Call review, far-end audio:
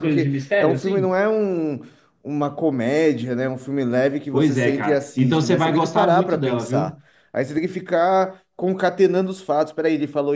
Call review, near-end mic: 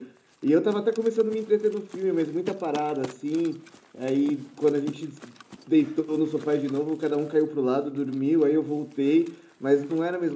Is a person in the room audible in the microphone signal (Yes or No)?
Yes